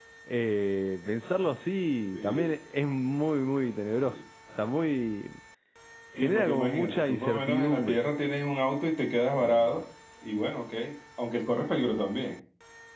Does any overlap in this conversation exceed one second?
Yes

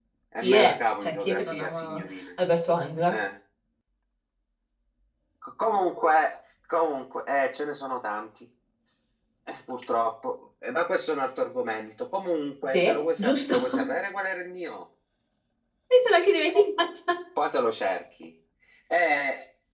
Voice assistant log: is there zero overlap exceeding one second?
No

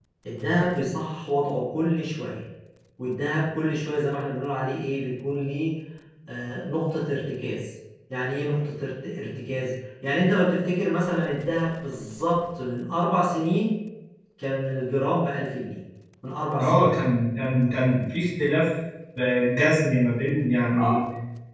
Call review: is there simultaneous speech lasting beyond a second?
No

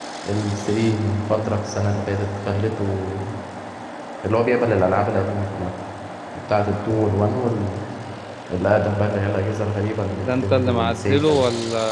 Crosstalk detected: Yes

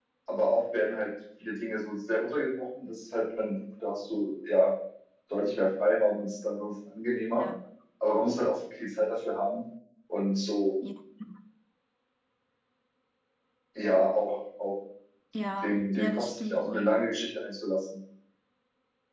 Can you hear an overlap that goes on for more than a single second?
Yes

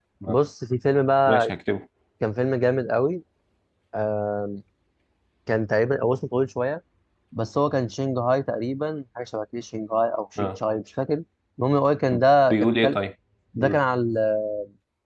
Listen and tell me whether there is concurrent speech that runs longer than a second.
No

